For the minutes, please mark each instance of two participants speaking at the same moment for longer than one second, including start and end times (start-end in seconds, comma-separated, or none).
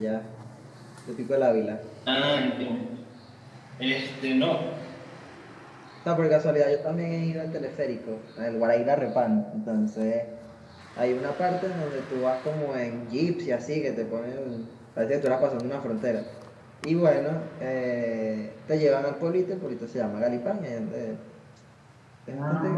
none